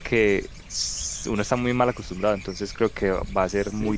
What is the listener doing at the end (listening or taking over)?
taking over